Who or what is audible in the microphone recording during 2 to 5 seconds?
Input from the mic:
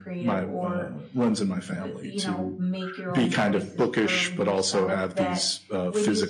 both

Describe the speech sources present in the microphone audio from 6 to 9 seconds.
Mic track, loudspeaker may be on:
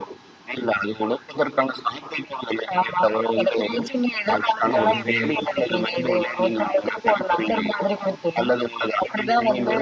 echo only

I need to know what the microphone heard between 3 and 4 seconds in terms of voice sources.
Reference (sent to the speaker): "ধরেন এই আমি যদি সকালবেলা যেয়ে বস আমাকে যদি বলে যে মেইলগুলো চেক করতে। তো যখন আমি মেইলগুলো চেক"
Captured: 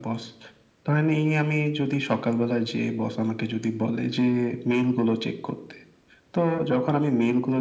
echo only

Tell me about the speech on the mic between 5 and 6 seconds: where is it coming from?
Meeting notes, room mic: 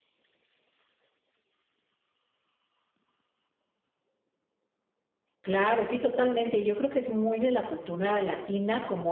user only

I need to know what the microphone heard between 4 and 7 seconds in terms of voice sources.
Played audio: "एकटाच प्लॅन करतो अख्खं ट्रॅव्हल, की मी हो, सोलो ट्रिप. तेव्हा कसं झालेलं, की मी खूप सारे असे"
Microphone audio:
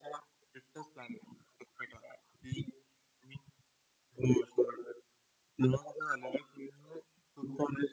echo only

